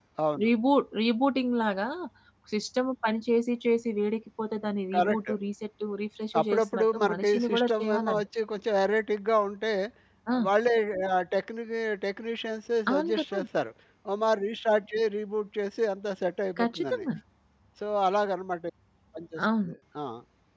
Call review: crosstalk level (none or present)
present